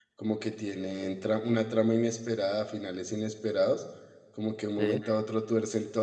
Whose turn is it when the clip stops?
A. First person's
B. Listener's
A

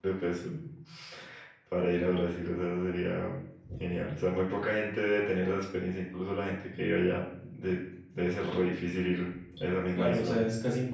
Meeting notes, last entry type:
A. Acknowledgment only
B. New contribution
B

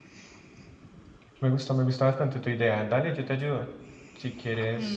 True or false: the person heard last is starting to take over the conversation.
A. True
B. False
A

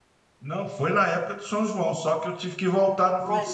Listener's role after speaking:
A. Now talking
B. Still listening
B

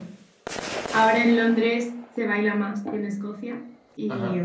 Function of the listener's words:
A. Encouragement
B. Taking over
A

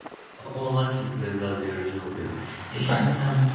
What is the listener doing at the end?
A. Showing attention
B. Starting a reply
A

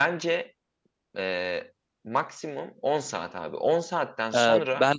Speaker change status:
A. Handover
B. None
A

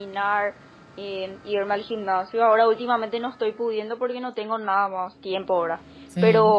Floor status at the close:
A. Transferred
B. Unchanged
B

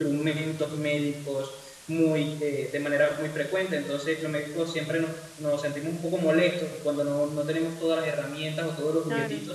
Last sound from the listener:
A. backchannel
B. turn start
A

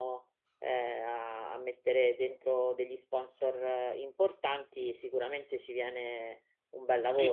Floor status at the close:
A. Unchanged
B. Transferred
B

